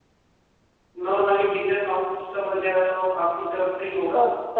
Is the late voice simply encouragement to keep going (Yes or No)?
No